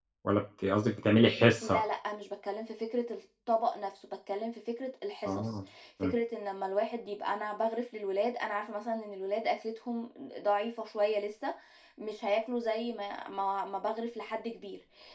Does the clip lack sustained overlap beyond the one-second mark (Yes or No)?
Yes